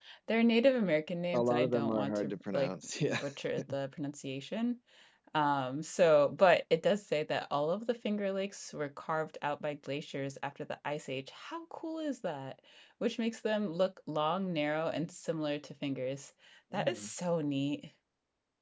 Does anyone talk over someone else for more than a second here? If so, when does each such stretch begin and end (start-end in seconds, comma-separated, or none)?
1.3-3.2